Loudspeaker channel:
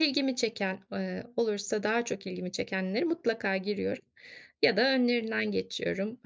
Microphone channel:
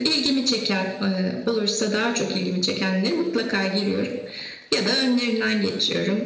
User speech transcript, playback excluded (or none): none